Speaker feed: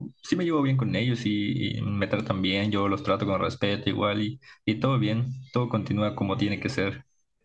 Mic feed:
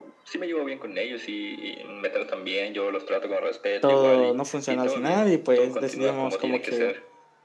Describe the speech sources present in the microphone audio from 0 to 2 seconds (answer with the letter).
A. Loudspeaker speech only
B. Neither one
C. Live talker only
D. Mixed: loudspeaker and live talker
A